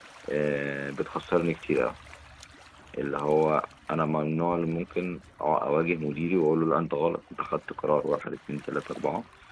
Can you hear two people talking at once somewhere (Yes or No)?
No